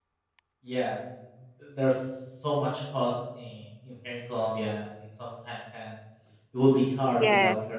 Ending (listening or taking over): taking over